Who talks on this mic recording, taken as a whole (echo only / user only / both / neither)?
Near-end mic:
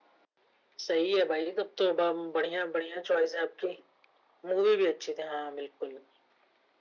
echo only